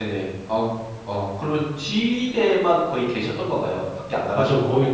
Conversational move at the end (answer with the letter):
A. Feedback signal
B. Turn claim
B